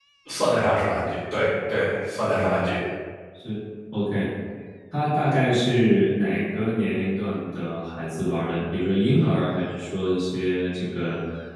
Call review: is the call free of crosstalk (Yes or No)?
Yes